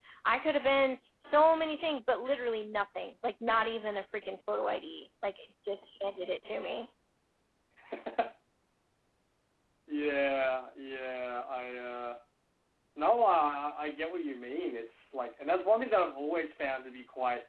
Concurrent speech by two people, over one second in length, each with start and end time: none

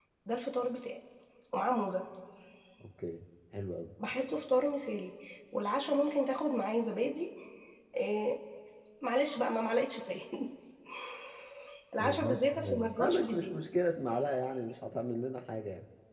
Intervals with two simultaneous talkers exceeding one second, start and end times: 12.0-13.6

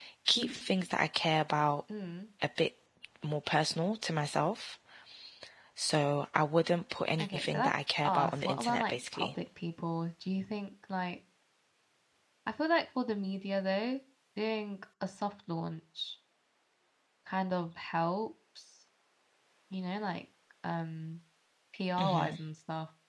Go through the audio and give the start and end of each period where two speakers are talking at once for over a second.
7.2-9.3

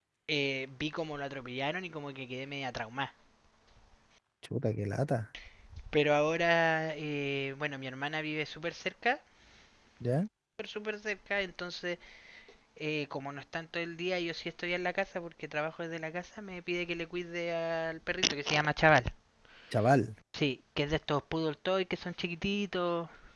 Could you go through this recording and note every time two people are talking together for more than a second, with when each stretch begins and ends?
none

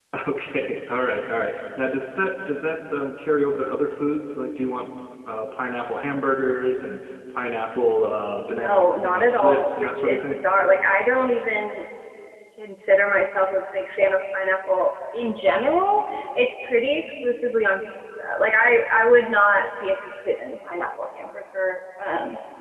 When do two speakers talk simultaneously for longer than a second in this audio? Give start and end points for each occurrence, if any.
8.5-10.4

